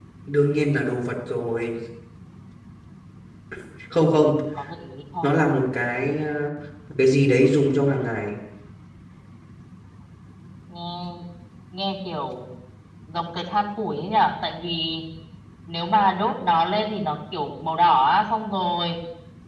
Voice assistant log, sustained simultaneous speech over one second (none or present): none